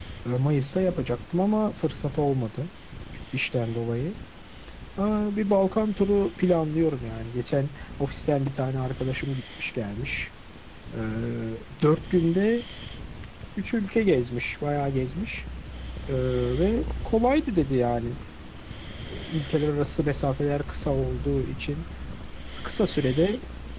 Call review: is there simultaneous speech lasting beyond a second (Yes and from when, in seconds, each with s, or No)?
No